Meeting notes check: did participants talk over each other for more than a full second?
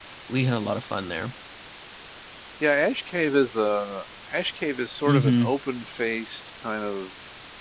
No

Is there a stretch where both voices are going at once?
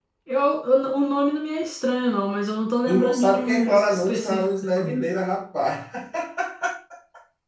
Yes, from 2.9 s

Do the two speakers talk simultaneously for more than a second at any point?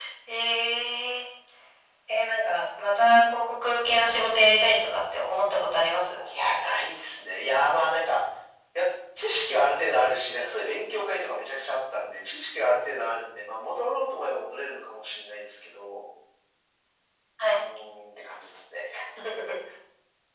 No

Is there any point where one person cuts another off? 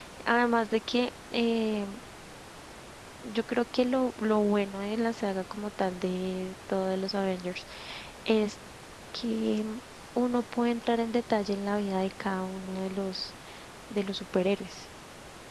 No

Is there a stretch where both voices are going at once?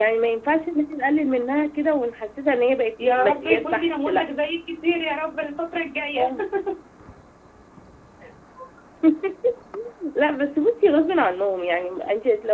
Yes, from 3.0 s

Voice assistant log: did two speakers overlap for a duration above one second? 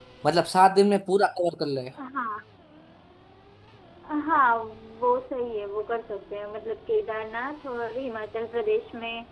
No

